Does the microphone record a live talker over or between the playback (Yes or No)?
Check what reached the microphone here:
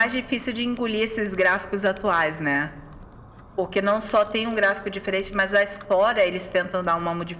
No